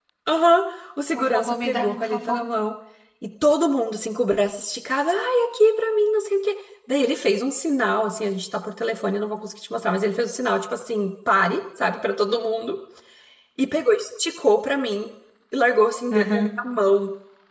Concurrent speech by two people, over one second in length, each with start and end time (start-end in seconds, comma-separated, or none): 1.1-2.4